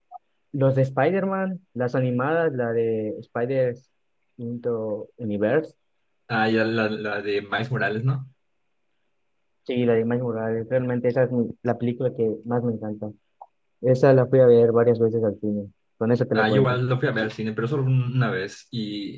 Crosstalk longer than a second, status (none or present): none